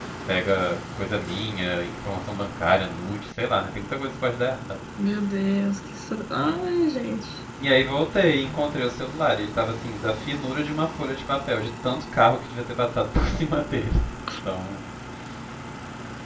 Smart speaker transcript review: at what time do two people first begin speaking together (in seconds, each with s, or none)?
none